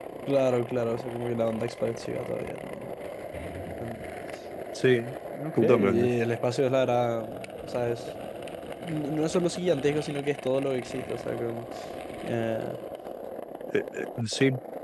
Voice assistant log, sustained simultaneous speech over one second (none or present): none